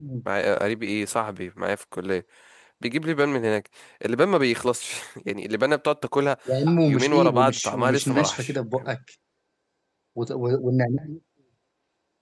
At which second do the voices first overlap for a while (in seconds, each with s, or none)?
6.8 s